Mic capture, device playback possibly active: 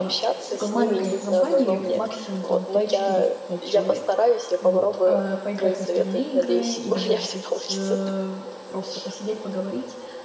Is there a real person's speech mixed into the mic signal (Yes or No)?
Yes